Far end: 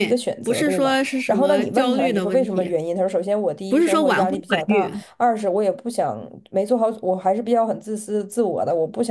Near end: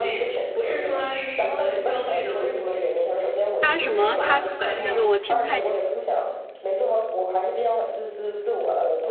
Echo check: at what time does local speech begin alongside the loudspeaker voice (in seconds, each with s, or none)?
3.6 s